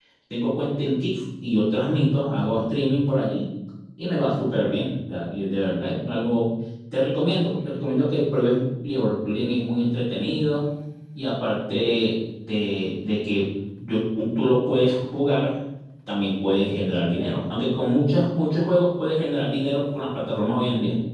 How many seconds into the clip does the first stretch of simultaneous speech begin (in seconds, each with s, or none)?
none